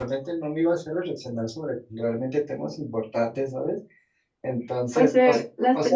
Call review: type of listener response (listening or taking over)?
taking over